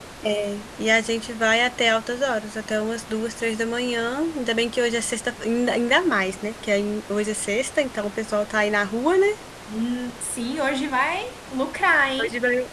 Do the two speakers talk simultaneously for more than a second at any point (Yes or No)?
No